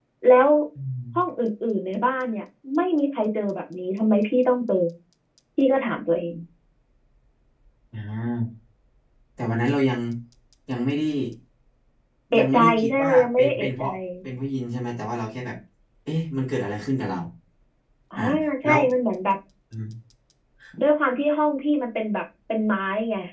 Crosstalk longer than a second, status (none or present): present